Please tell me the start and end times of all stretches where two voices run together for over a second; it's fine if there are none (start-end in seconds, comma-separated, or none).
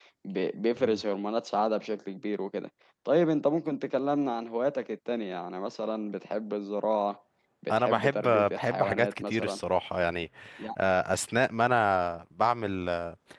7.7-9.6